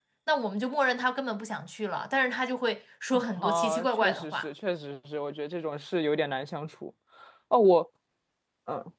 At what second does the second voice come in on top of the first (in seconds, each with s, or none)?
3.1 s